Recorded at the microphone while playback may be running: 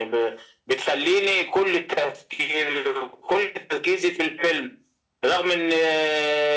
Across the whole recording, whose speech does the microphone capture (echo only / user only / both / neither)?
echo only